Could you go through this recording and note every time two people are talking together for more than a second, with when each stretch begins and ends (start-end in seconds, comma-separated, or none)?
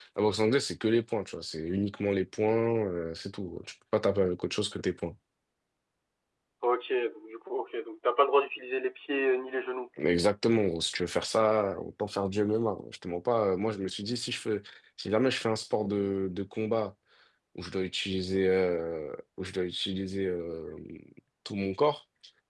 none